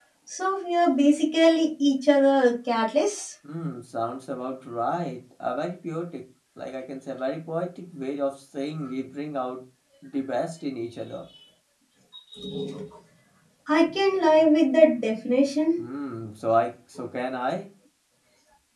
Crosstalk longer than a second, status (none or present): none